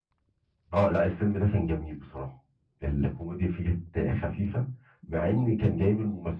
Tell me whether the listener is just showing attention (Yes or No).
Yes